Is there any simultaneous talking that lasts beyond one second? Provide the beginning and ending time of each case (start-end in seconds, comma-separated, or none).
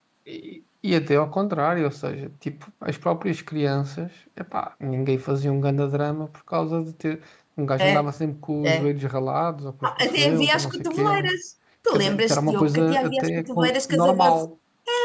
10.0-11.3, 11.9-14.4